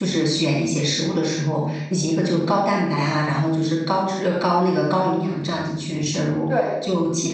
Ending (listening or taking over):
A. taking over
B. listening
B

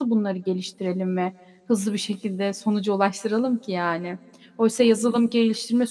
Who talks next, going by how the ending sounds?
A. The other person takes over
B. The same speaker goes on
B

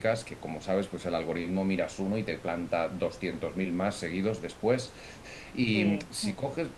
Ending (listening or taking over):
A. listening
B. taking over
A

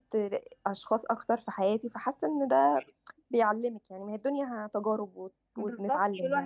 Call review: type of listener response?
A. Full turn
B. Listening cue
A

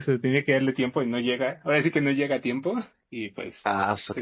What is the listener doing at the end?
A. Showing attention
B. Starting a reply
B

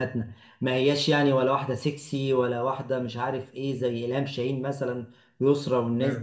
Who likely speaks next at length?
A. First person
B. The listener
A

